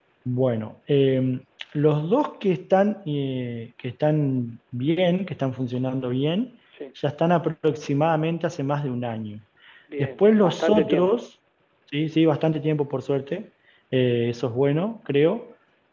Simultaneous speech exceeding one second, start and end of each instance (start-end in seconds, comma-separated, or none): 10.0-11.2